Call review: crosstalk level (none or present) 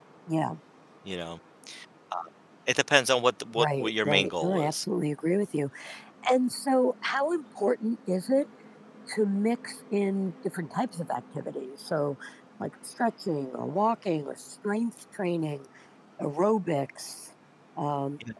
present